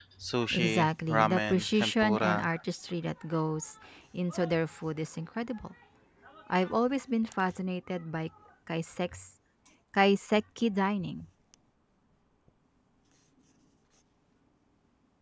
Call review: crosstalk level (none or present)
present